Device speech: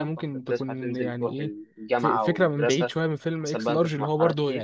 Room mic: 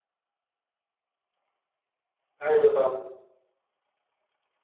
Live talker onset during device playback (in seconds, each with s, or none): 2.4 s